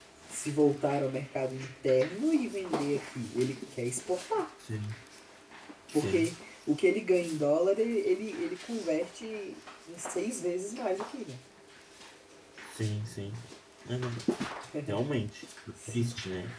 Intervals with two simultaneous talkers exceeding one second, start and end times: none

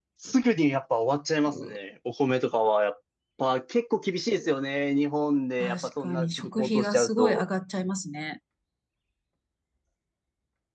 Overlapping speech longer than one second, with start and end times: 5.6-7.4

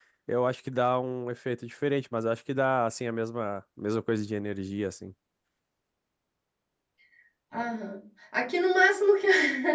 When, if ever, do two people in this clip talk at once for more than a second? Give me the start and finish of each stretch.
none

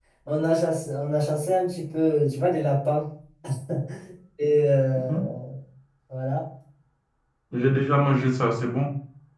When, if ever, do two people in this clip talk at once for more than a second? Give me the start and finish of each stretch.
none

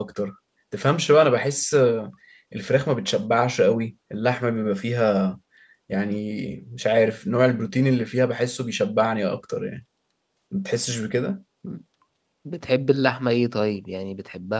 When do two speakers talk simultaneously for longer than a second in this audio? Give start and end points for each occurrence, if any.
none

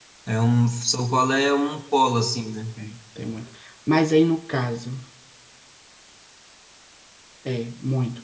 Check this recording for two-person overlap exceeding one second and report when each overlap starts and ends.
none

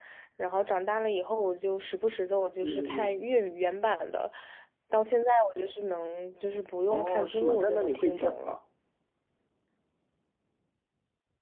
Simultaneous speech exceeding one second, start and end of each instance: 6.9-8.6

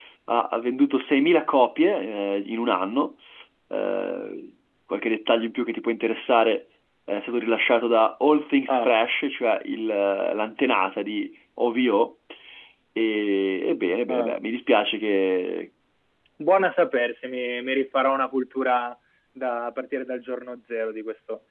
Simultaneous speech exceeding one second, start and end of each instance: none

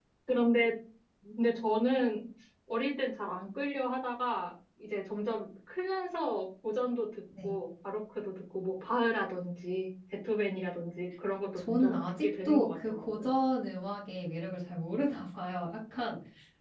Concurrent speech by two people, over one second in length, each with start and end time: 11.6-13.3

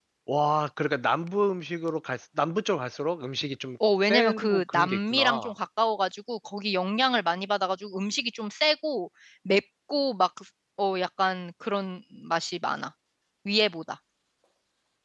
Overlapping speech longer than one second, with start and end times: 4.0-5.5

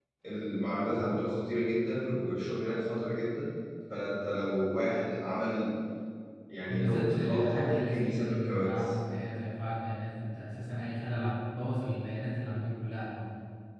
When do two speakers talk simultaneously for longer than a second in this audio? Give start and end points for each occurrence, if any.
6.7-8.9

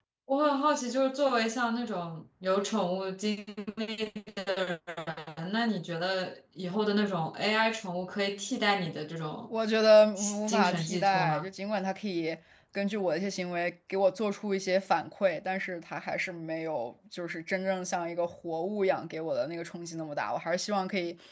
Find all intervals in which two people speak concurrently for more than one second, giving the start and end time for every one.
10.2-11.5

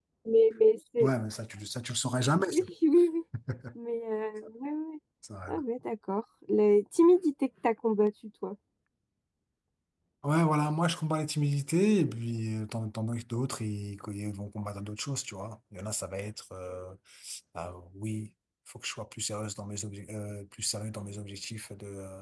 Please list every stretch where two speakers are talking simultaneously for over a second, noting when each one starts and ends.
none

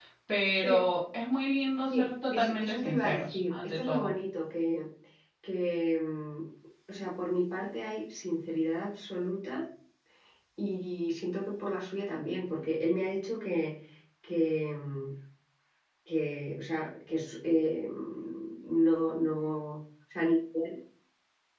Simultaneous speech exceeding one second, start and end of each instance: 1.8-4.1

